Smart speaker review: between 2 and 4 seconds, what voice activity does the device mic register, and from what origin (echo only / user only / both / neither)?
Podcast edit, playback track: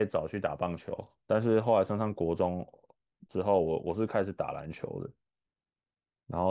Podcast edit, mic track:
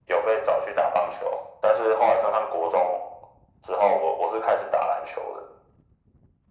echo only